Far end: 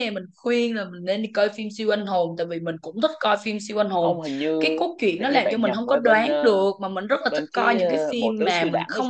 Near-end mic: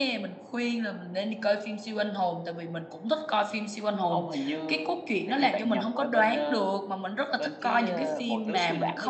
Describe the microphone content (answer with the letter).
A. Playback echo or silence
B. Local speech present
A